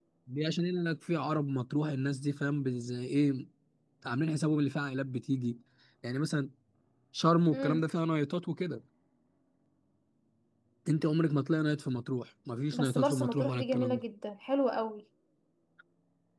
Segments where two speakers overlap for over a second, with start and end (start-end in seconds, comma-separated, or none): 12.7-14.0